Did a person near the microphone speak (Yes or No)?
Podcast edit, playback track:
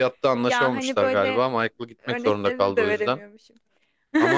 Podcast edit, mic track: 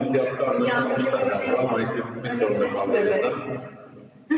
Yes